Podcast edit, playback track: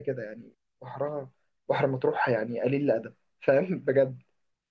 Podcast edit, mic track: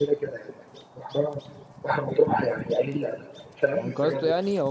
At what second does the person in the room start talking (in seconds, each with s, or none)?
3.7 s